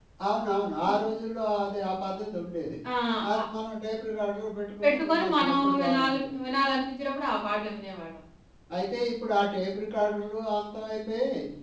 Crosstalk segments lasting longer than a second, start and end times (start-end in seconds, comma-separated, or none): 4.8-6.3